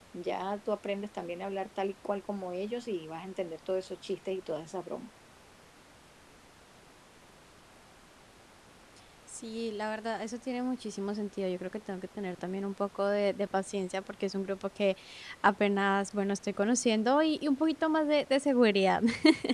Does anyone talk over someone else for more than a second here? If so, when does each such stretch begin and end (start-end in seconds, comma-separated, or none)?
none